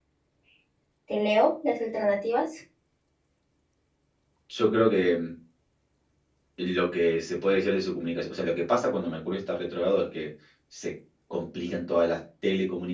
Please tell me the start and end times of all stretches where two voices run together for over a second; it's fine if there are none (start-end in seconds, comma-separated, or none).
none